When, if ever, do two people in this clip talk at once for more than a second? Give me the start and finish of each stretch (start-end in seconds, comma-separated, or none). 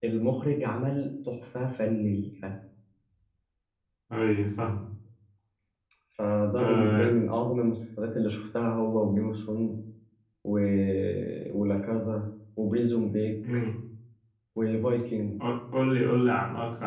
none